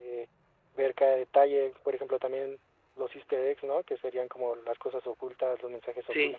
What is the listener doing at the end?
listening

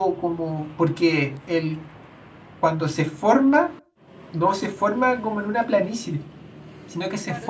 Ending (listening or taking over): taking over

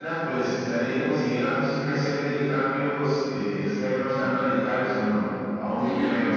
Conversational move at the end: taking over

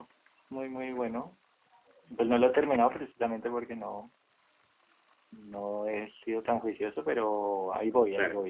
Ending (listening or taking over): listening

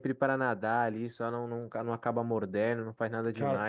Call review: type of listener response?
listening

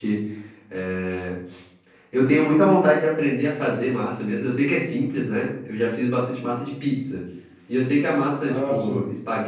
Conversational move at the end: listening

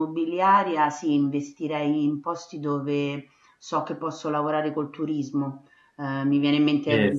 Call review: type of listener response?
listening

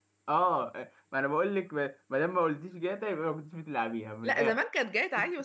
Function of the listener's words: taking over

